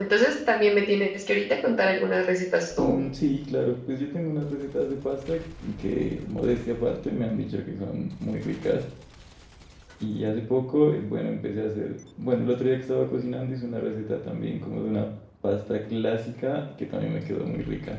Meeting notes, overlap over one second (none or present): none